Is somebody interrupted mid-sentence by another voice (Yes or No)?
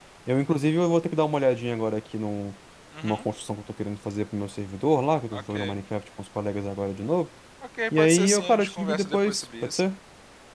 Yes